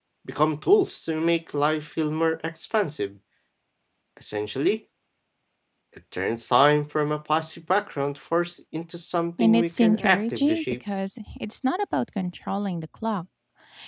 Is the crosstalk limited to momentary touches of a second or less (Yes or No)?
No